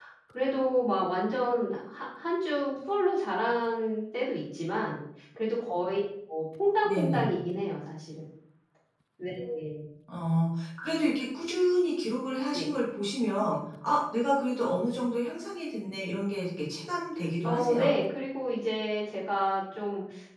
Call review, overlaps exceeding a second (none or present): none